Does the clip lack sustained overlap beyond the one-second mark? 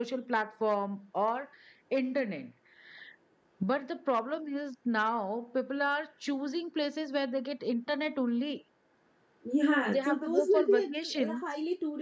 No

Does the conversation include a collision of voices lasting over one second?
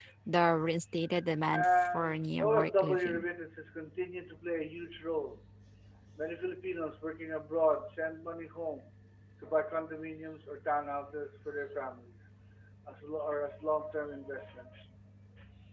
Yes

